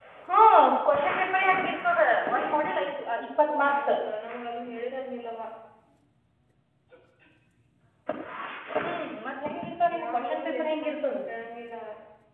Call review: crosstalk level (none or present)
present